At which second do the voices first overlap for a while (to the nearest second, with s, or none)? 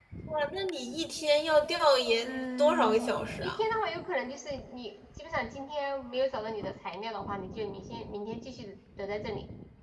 2 s